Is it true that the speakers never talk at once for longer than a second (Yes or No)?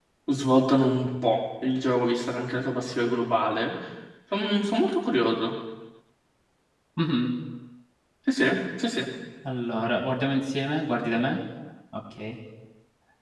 Yes